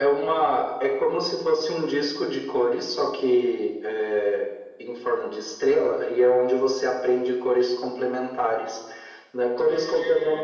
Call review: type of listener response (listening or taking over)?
listening